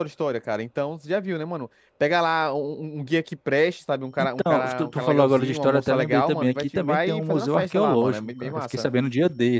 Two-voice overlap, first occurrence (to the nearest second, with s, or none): 4 s